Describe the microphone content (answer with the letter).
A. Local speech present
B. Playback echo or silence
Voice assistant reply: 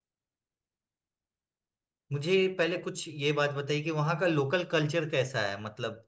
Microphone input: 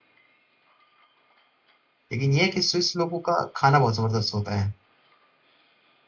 A